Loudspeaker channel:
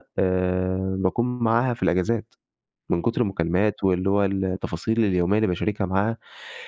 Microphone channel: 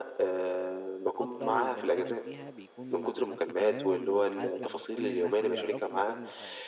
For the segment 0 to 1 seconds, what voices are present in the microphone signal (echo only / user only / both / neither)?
echo only